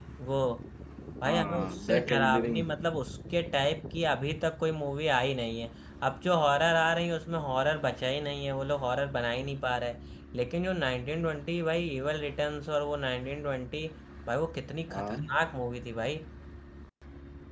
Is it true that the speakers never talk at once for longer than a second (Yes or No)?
No